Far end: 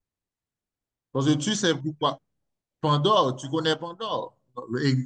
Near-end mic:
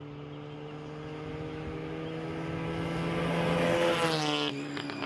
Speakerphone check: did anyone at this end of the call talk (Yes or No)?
No